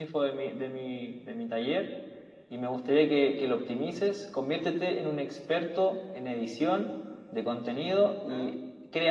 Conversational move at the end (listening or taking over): listening